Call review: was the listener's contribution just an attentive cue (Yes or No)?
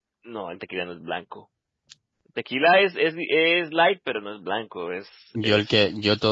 No